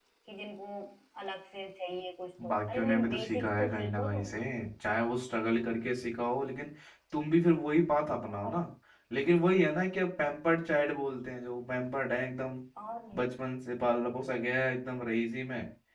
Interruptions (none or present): present